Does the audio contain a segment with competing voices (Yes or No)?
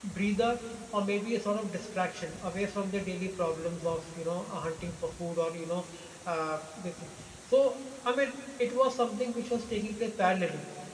No